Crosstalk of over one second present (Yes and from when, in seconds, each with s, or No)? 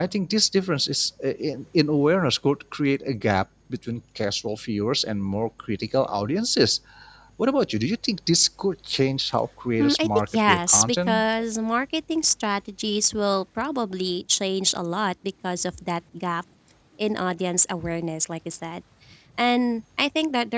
Yes, from 9.8 s